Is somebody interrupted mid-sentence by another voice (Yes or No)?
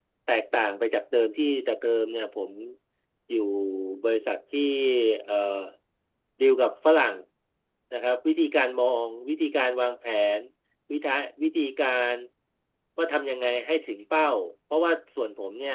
No